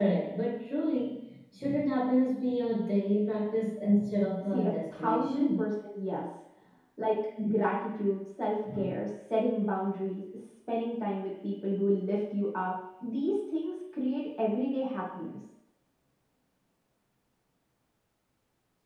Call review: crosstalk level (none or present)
present